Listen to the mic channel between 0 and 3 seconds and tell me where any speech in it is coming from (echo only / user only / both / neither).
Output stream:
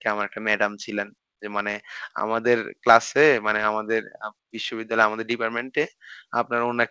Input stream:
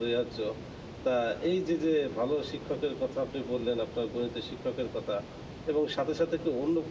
user only